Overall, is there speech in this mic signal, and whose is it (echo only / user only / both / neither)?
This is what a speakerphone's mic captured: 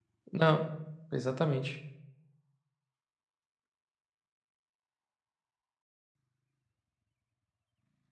user only